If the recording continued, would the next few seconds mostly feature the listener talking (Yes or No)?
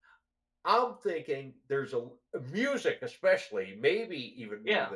No